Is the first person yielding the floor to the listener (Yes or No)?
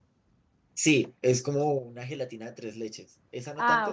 Yes